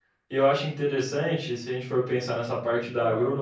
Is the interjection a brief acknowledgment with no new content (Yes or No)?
Yes